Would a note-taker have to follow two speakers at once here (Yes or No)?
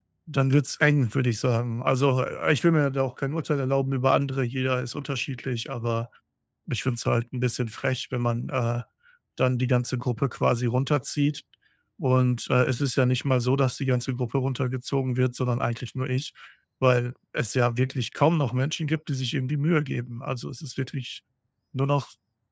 No